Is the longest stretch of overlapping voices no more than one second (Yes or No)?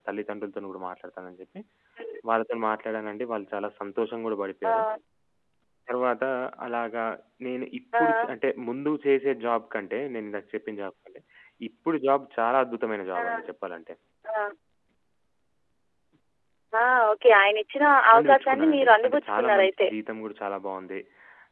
No